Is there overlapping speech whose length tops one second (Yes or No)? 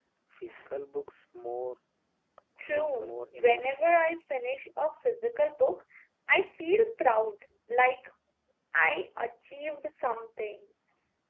Yes